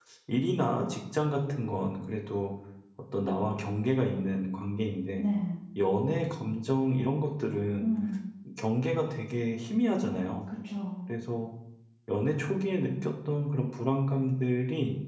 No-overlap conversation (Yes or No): Yes